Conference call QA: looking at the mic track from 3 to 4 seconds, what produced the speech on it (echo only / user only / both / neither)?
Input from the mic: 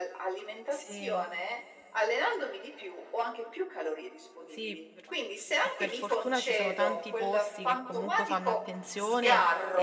echo only